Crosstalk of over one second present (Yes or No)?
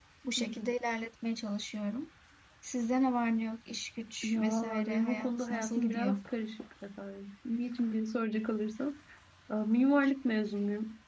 Yes